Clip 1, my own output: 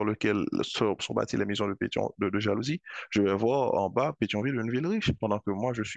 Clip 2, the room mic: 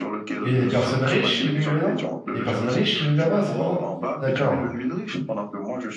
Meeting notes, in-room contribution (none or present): present